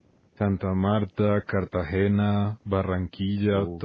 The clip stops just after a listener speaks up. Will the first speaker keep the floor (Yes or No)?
Yes